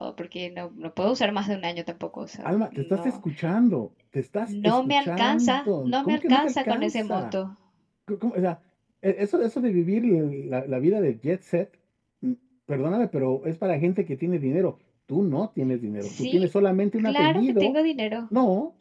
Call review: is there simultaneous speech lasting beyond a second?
Yes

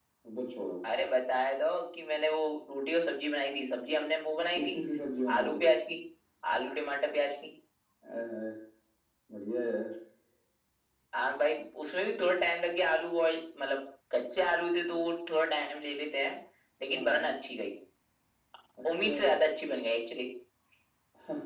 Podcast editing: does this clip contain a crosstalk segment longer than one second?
No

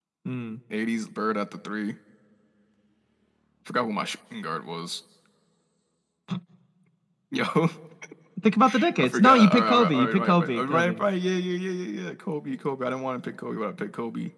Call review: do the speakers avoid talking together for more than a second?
No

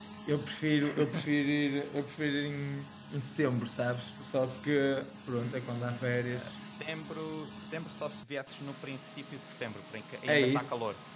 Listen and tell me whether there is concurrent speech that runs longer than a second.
Yes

